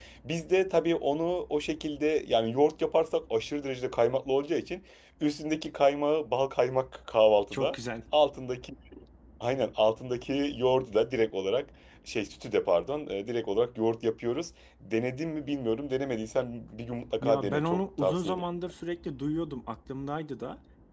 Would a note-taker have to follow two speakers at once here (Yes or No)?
Yes